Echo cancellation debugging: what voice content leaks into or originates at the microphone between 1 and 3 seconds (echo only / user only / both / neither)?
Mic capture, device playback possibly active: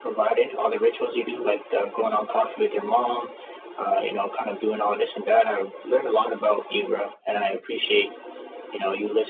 echo only